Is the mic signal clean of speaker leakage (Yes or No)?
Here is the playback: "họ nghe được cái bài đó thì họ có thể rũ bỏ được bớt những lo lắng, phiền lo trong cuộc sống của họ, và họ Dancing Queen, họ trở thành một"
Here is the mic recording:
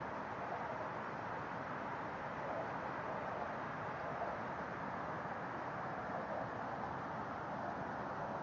Yes